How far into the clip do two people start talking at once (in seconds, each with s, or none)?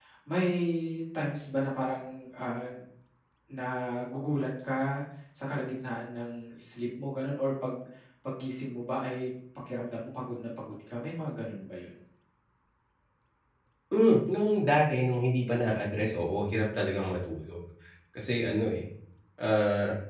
none